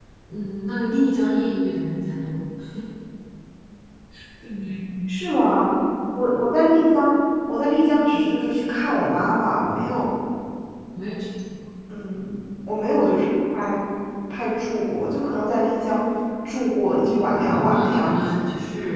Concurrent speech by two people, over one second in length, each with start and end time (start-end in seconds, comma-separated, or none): 17.2-18.5